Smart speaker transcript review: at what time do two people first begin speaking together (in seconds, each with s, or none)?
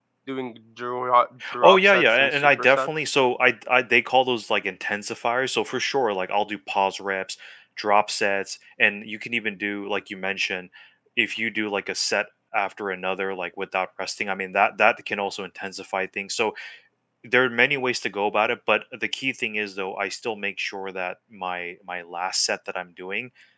1.4 s